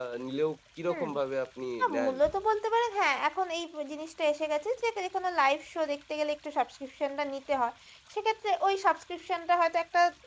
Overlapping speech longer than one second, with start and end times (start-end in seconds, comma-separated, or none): none